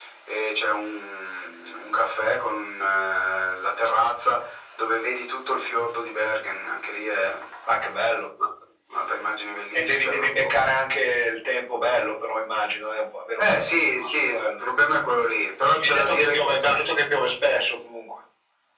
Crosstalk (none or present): present